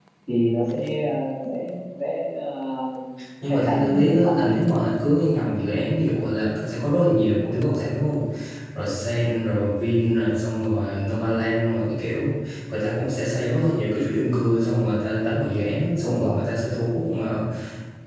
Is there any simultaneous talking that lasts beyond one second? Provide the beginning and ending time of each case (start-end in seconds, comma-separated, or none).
3.4-4.6